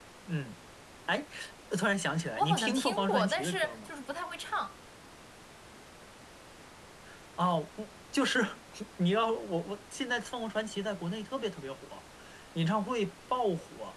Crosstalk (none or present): present